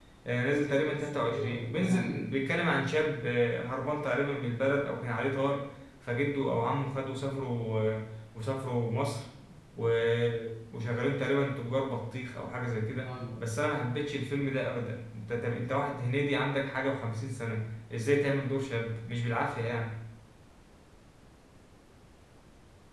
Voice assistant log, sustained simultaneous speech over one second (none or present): present